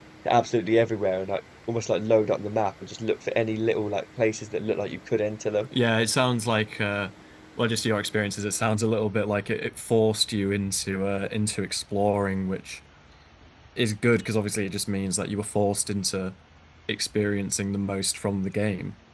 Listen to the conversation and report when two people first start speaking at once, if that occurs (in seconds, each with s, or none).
none